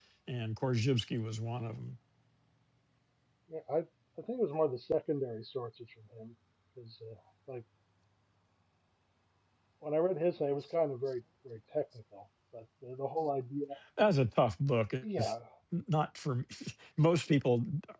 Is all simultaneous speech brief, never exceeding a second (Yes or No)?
Yes